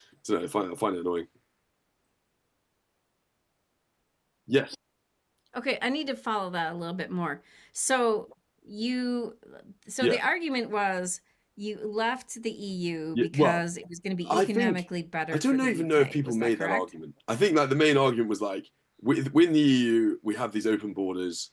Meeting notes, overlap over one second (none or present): present